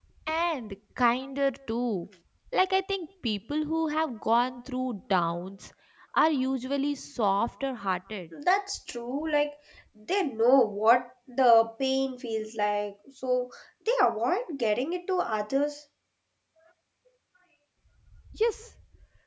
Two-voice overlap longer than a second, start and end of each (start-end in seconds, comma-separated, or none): none